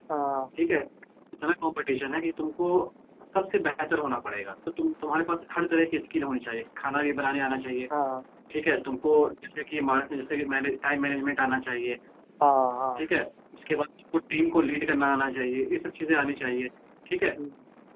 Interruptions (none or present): none